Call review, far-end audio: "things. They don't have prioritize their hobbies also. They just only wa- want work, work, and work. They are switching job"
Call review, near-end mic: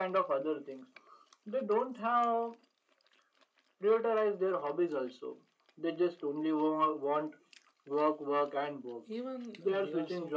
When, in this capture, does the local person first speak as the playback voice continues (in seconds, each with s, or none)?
9.1 s